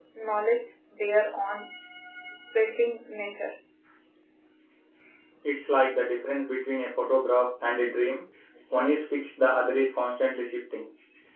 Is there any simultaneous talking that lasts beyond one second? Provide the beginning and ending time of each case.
none

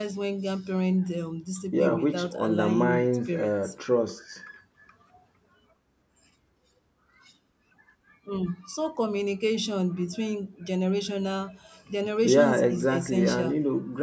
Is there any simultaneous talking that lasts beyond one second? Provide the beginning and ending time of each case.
1.7-3.7, 12.2-13.5

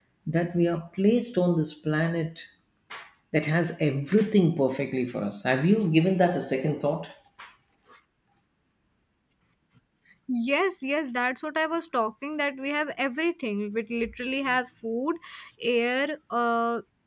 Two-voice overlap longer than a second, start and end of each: none

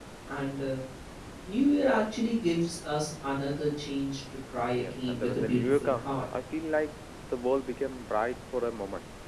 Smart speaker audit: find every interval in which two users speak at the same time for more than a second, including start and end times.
4.7-6.1

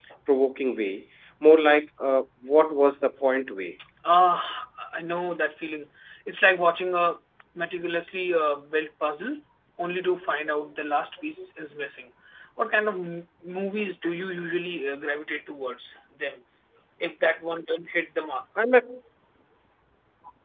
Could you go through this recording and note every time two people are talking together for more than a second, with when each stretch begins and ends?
none

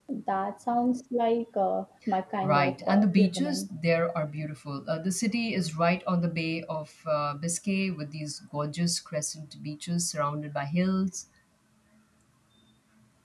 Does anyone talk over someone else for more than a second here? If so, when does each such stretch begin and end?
2.4-3.6

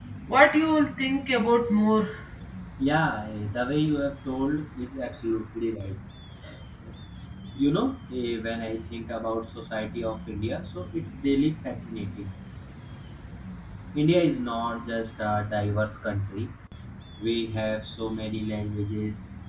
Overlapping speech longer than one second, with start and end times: none

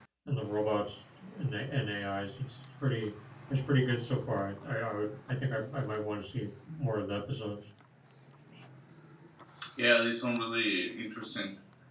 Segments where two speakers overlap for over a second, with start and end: none

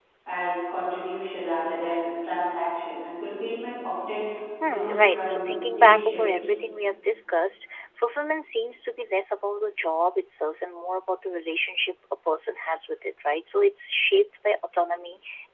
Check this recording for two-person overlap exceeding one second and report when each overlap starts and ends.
4.7-6.2

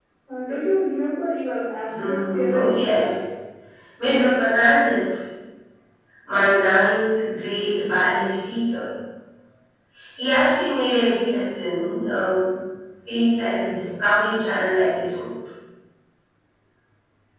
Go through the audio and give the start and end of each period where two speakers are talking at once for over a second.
1.9-3.1

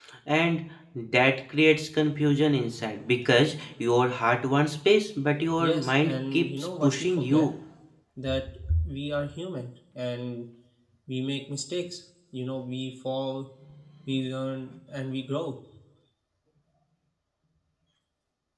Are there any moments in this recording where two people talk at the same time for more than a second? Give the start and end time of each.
5.6-7.5

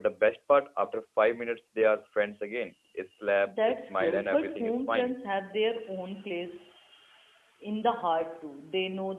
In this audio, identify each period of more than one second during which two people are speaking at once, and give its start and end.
3.5-5.1

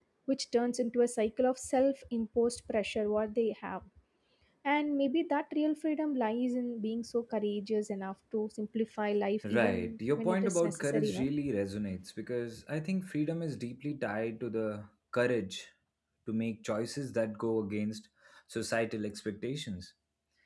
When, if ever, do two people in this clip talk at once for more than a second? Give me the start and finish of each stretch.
9.4-11.3

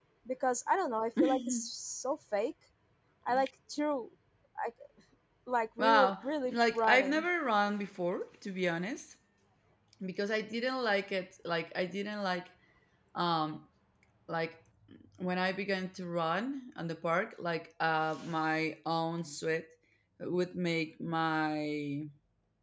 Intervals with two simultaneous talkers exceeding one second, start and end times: 5.8-7.3

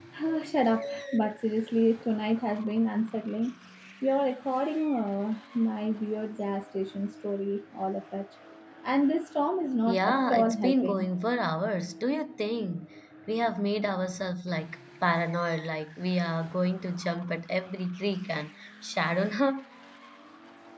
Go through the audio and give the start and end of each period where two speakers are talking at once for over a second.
9.9-11.1

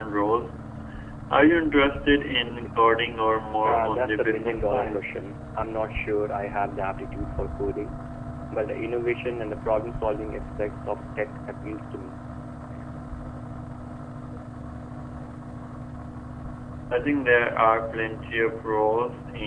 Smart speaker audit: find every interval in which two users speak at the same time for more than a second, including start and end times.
3.6-5.0

